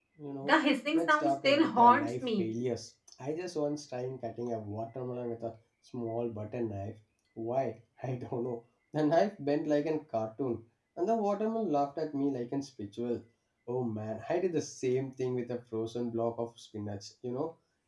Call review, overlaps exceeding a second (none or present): present